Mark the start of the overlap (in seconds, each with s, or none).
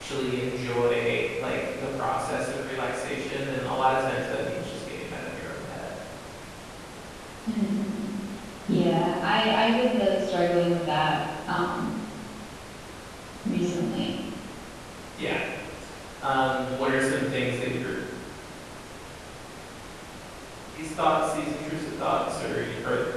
none